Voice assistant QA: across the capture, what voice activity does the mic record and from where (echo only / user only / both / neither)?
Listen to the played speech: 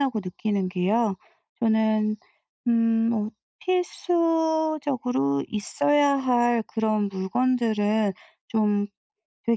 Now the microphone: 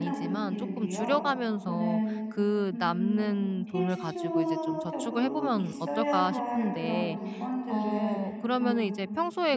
both